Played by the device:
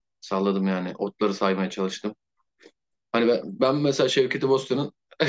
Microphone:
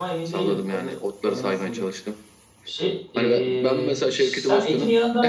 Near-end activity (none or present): present